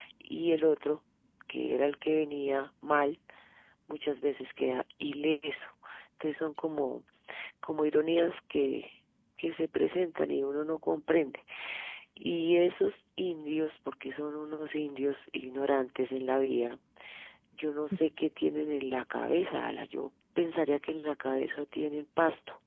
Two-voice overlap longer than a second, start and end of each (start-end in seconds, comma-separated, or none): none